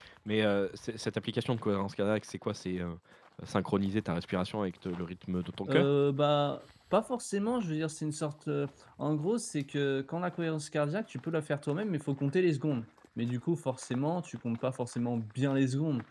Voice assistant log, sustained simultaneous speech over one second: none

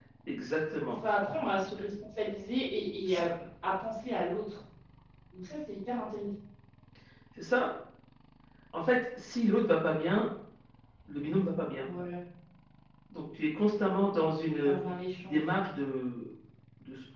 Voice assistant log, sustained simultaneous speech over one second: none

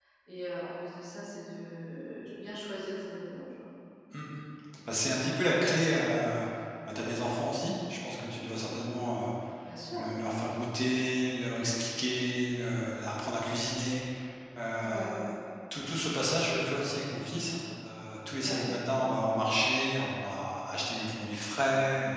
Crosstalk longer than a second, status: none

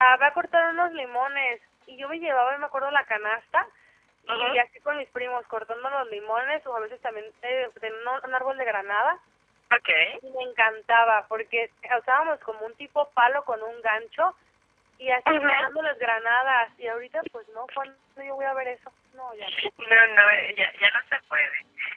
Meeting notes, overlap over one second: none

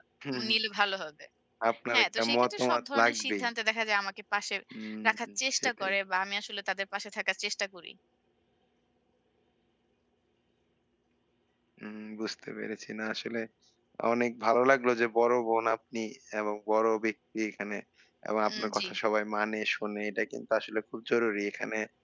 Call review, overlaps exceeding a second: present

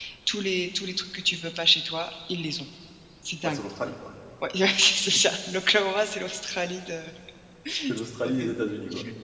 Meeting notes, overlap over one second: none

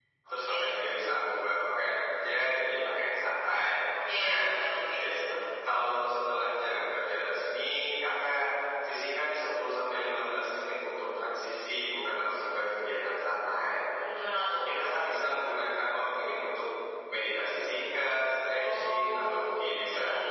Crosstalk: present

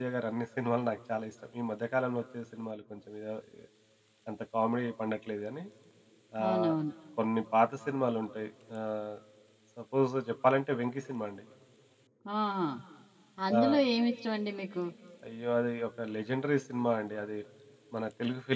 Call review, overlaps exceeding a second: none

